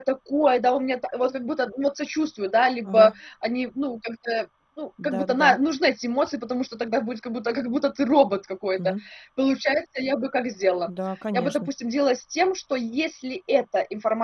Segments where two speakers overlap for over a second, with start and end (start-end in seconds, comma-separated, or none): none